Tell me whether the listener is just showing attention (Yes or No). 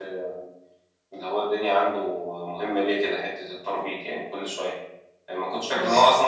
Yes